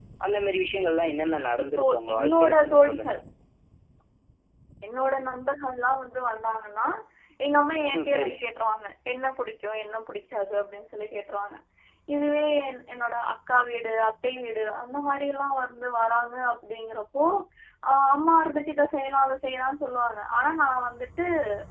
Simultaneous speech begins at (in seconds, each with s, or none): 1.6 s